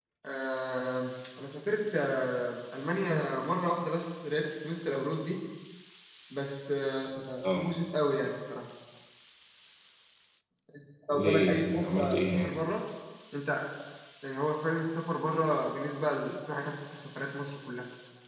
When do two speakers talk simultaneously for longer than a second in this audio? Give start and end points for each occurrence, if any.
11.1-12.5

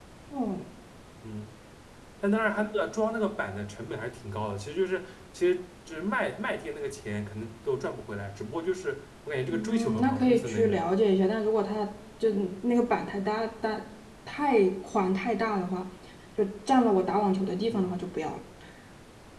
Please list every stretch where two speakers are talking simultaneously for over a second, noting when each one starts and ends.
9.5-10.8

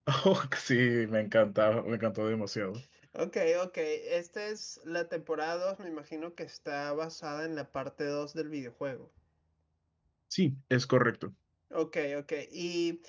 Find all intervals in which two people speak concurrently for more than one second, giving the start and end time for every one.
none

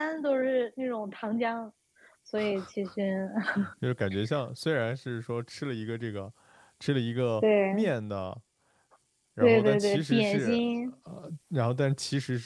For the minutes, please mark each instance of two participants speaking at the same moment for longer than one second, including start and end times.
9.4-10.6

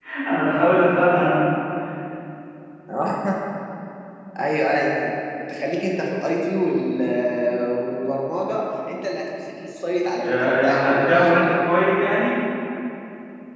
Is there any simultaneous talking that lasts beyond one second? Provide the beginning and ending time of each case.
10.2-11.4

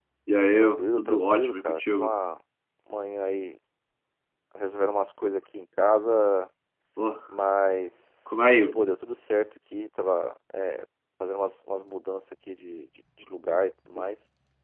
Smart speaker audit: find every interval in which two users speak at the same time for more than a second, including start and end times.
0.6-2.1

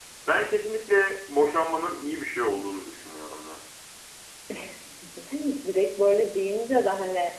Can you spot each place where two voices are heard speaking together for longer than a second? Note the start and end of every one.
none

